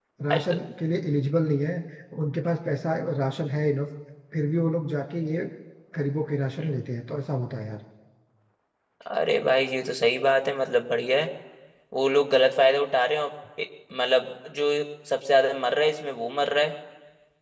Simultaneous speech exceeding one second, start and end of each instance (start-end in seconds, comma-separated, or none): none